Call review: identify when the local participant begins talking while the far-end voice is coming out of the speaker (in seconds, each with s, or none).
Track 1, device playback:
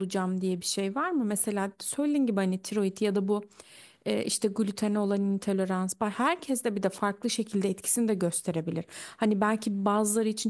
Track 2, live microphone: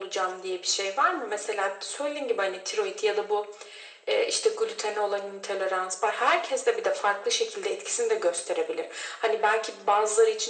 none